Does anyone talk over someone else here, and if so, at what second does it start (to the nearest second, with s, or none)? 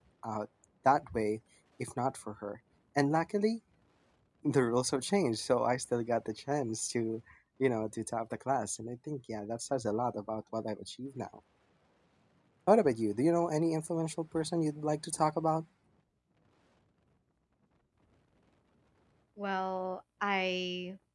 none